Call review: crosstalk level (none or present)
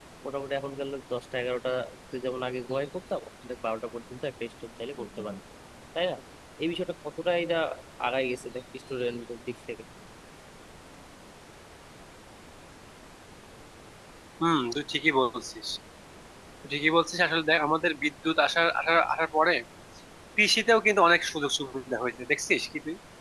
none